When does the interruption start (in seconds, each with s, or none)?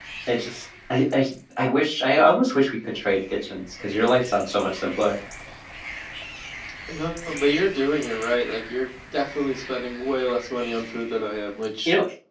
none